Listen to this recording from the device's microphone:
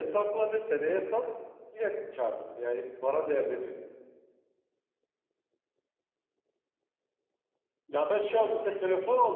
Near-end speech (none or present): present